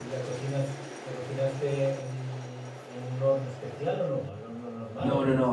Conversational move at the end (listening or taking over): taking over